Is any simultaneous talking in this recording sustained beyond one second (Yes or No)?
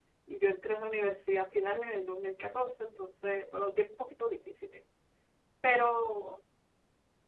No